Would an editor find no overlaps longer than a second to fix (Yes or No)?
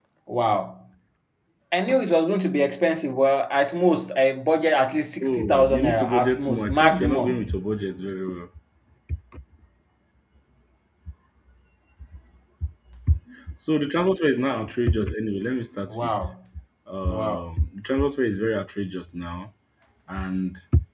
No